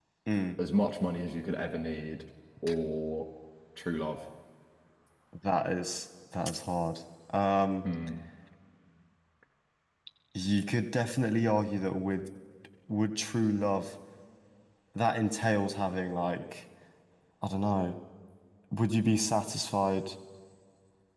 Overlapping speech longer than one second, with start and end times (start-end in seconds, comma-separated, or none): none